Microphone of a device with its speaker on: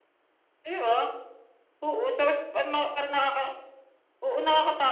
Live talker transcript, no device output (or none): none